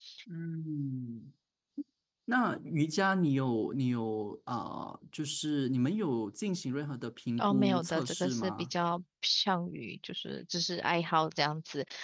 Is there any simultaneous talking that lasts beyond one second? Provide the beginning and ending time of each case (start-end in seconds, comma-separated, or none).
7.4-8.7